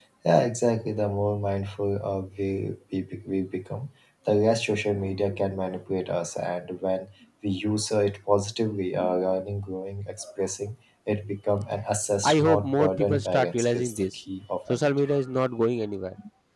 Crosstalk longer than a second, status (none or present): present